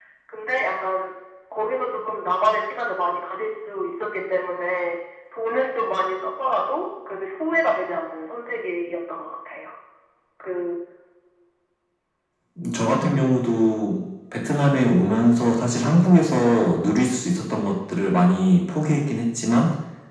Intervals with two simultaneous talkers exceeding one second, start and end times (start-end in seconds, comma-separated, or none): none